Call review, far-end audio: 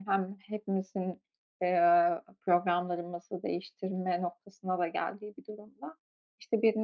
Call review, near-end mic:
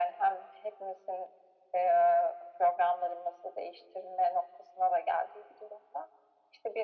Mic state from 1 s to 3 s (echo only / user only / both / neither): echo only